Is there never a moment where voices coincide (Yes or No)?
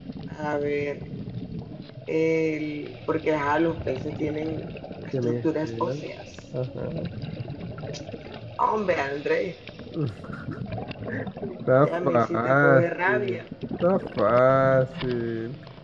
No